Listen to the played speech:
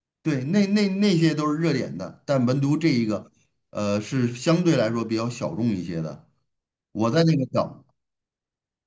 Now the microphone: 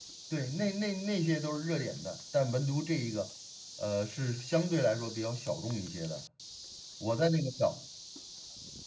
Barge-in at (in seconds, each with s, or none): none